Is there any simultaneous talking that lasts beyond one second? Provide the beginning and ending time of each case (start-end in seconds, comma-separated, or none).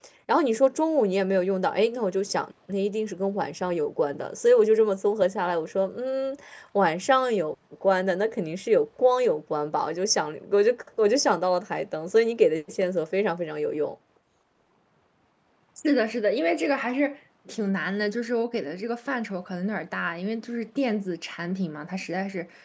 none